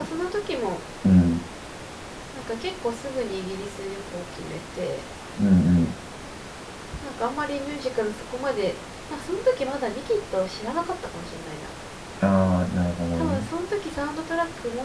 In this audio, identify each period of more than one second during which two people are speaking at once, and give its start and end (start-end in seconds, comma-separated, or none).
none